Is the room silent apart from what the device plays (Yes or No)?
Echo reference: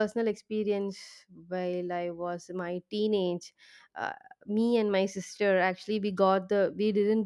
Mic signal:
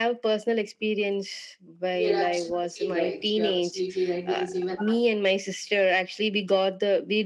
No